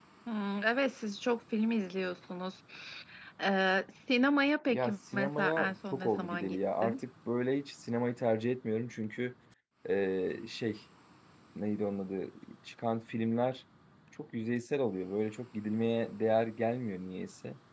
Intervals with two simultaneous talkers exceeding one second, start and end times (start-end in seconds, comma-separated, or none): 4.7-7.0